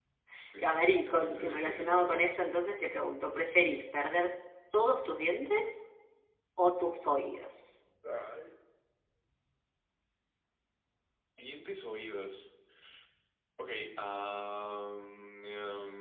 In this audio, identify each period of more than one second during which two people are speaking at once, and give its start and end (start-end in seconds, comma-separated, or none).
0.6-2.3